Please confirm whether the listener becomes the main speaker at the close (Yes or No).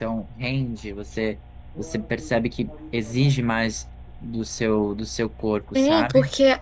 Yes